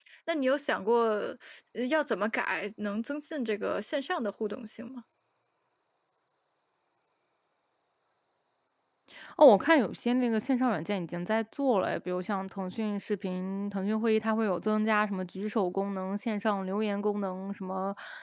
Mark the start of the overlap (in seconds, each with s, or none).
none